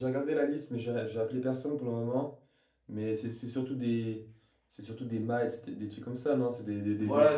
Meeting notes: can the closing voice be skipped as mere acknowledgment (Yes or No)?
No